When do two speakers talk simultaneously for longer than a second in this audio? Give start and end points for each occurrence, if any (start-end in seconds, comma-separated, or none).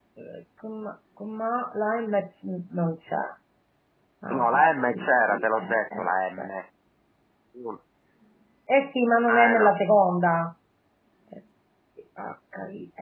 4.4-6.1